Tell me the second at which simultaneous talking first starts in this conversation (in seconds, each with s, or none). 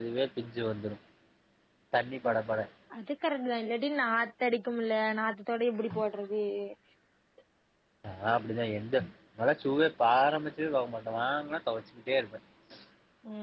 none